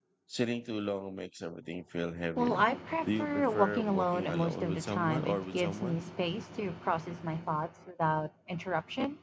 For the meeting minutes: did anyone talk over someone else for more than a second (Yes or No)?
Yes